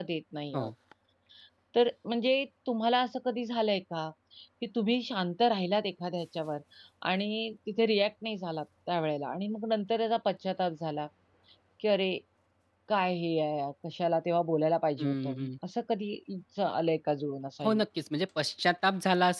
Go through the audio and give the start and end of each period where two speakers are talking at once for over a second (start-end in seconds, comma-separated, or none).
none